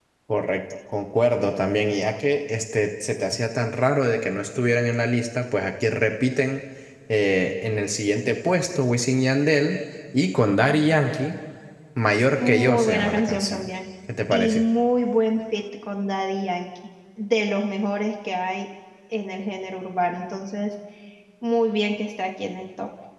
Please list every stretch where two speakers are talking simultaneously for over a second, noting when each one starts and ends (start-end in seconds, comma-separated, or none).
12.4-13.7